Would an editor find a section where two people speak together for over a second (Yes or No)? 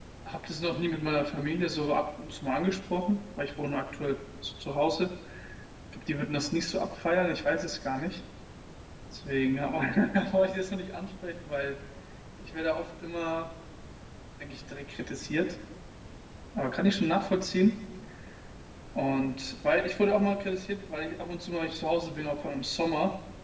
No